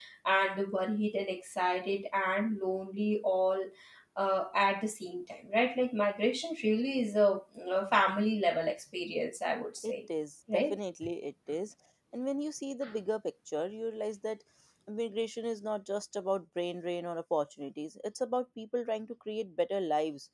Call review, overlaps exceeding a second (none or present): none